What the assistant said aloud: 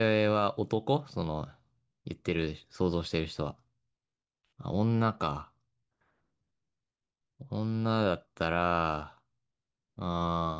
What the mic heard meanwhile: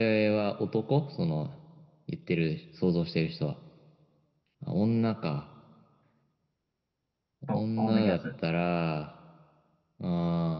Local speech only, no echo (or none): そう、コードギアス。